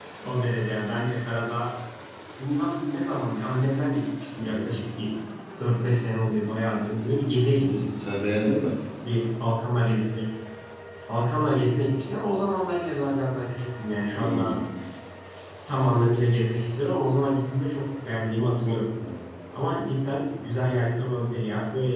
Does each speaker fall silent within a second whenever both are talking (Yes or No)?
Yes